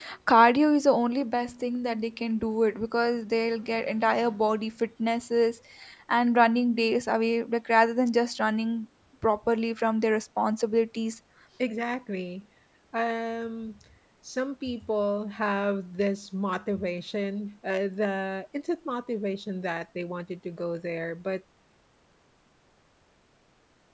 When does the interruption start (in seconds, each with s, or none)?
none